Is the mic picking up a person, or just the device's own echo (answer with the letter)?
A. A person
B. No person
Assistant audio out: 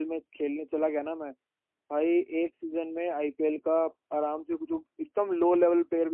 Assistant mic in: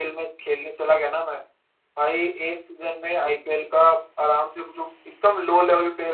A